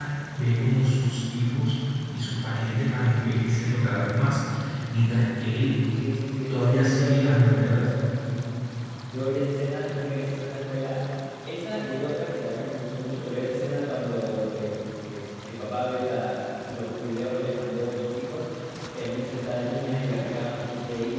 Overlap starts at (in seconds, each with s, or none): 6.5 s